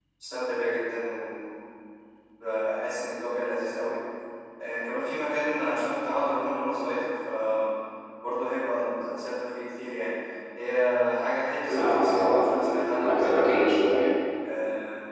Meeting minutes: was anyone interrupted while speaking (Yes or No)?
Yes